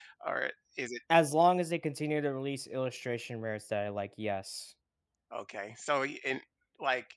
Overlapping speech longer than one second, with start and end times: none

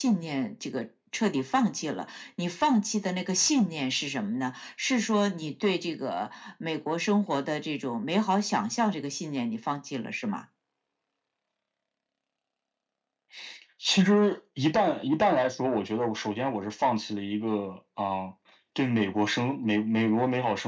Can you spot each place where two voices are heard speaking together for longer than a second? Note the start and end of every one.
none

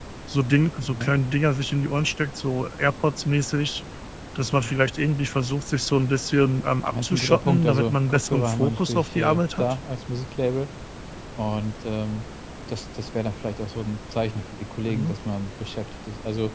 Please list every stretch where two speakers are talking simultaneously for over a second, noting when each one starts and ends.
6.9-9.6

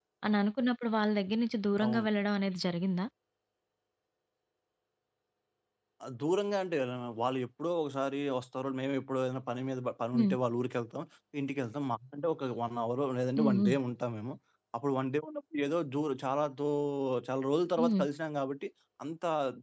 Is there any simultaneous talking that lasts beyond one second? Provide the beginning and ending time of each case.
none

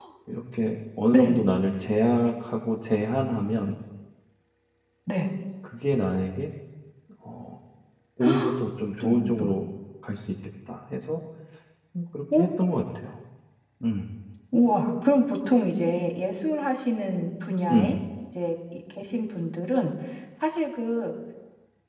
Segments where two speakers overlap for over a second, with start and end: none

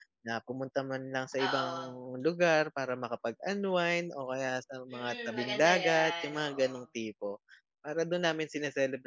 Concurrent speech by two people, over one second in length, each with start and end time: 4.9-6.7

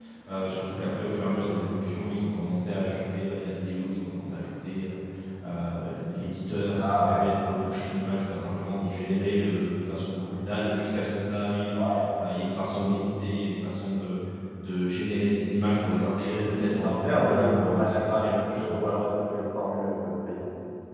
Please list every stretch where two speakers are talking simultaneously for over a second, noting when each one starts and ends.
16.6-19.1

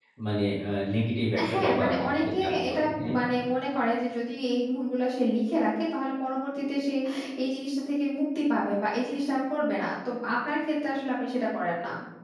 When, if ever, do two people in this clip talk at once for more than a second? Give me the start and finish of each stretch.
1.5-3.1

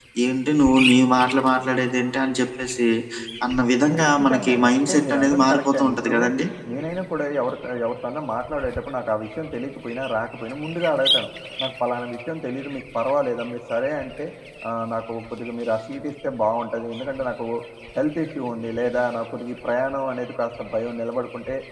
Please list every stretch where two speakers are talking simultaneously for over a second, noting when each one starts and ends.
4.2-6.1

